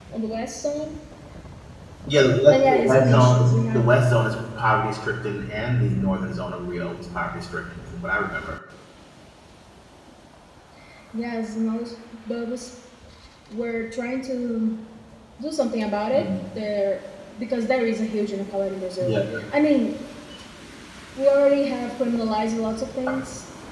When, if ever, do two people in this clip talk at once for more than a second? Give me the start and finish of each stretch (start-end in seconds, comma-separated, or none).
2.5-3.8